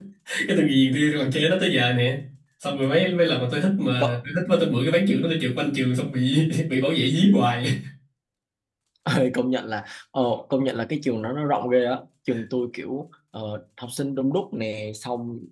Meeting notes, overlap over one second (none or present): none